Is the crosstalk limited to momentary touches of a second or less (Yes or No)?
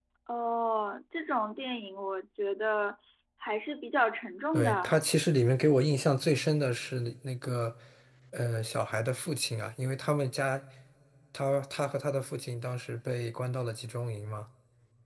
Yes